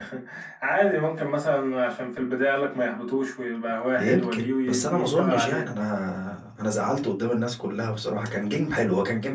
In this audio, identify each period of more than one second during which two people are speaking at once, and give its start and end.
4.0-5.7

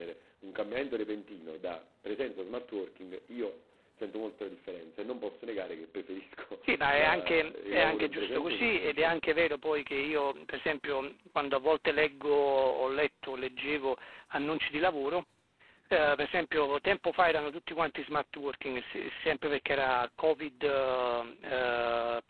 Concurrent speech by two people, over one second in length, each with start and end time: 6.6-9.2

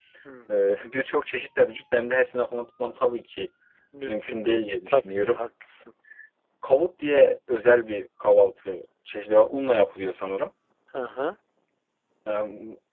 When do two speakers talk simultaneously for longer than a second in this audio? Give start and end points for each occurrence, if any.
4.1-5.5

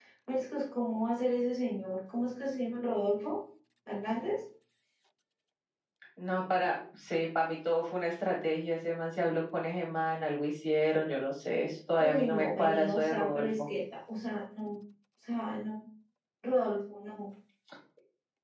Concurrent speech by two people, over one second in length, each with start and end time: 12.0-13.6

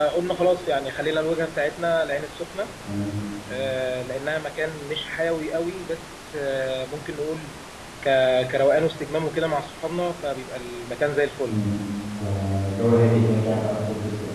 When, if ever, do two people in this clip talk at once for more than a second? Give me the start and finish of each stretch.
none

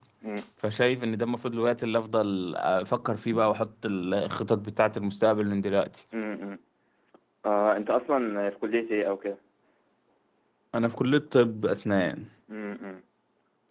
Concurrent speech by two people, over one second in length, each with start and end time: none

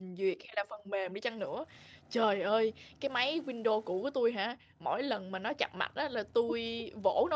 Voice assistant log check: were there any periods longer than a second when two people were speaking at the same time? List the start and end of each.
none

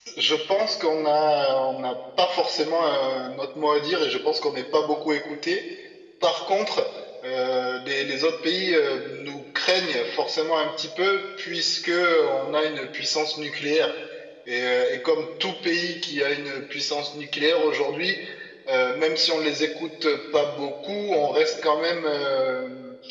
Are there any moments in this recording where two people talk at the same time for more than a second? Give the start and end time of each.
none

